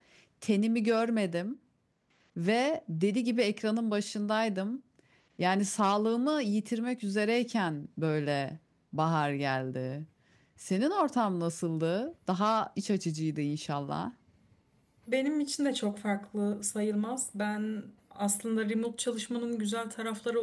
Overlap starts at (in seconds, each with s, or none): none